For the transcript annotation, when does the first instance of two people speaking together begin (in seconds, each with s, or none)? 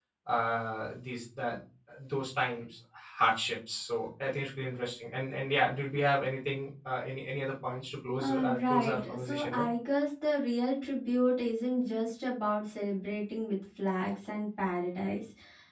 8.2 s